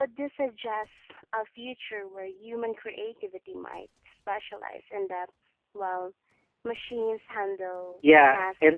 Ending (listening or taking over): taking over